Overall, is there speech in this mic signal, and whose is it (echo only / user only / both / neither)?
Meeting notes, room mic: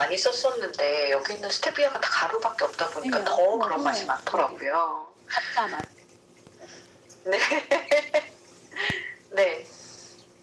both